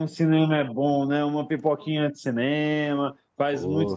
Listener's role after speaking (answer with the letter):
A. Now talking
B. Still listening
A